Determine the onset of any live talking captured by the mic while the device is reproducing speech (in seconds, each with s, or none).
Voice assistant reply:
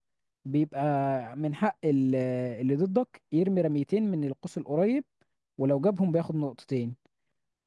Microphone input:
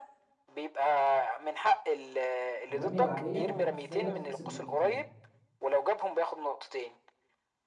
2.7 s